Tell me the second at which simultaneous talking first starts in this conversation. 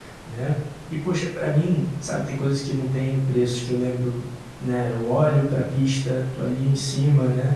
none

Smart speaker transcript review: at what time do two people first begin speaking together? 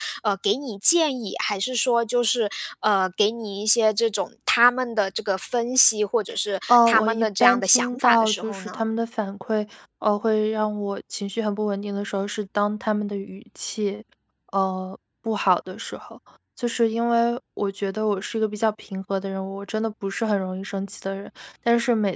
6.7 s

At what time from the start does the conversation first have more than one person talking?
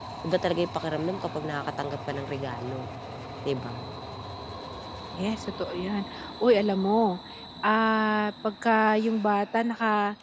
none

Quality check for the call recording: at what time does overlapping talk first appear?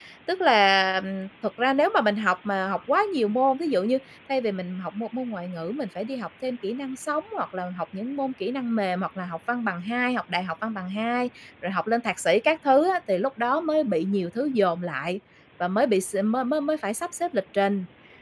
none

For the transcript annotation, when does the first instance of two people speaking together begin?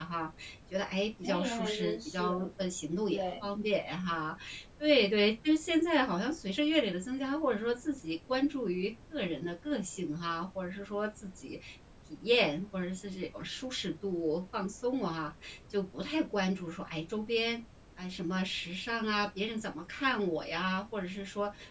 1.2 s

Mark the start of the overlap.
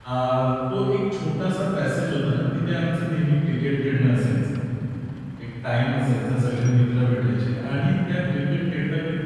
none

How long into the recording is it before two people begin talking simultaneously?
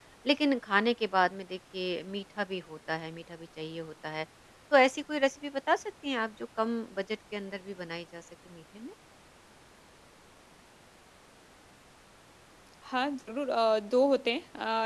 none

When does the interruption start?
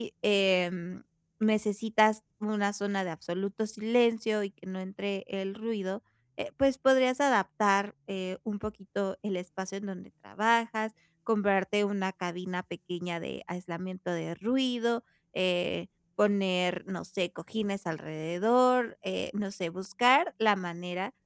none

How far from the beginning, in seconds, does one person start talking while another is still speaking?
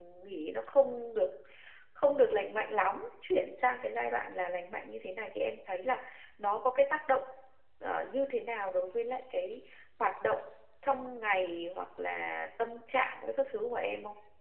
none

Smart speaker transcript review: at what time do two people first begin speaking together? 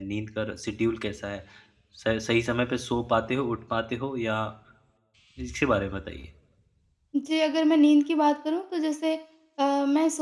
none

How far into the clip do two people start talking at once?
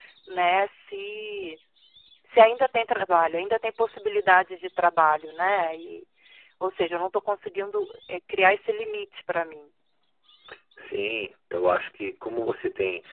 none

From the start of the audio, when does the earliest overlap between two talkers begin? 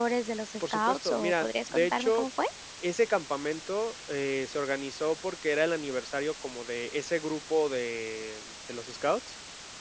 0.6 s

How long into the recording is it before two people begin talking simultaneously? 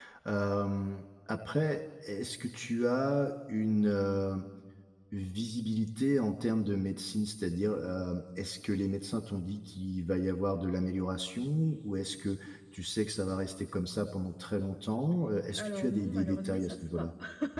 15.6 s

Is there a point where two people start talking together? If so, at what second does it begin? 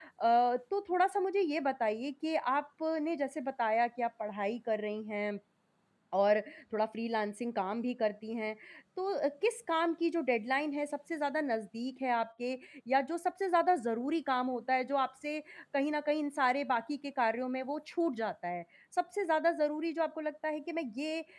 none

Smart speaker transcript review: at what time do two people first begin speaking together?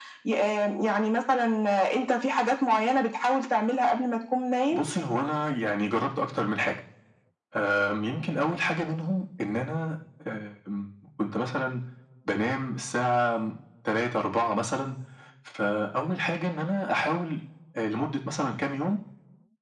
none

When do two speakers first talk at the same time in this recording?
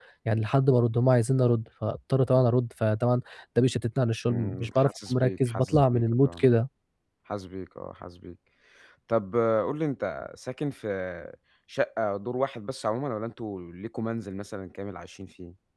4.3 s

